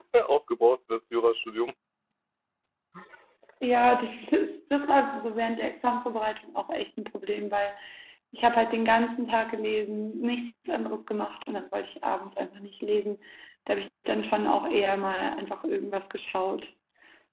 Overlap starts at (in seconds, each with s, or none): none